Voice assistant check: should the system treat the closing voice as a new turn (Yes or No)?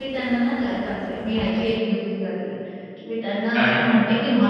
No